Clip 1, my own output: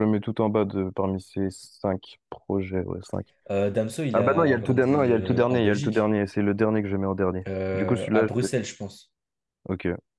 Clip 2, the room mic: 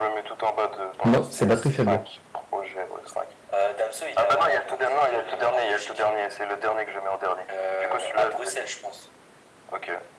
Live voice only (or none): non, c'est batterie faible.